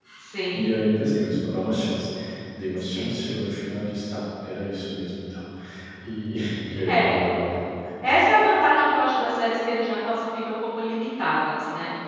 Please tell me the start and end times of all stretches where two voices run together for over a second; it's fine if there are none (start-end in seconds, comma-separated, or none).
none